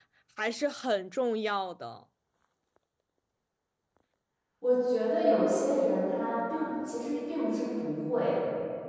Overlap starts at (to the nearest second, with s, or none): none